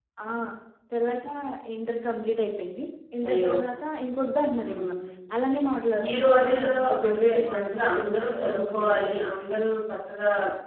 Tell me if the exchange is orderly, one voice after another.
No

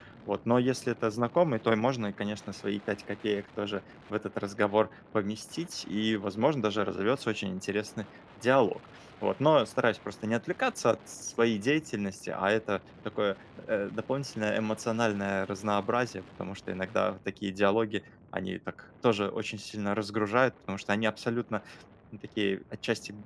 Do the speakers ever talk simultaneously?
No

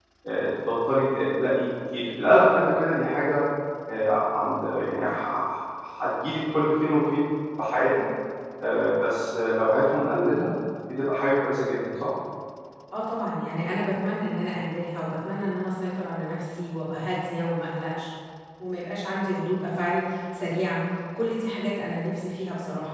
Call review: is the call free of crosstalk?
Yes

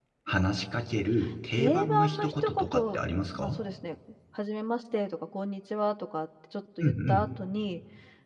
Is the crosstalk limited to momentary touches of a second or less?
No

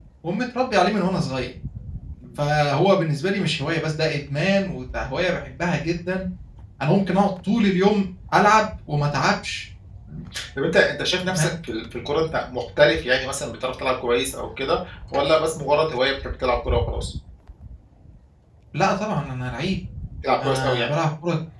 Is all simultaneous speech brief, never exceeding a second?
Yes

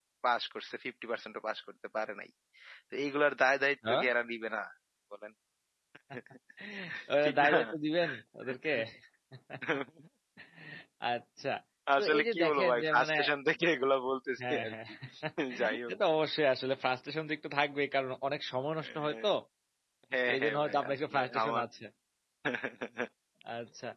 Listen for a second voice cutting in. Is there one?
Yes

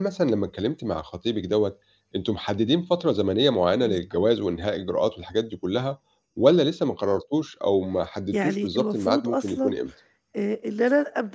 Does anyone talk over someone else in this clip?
Yes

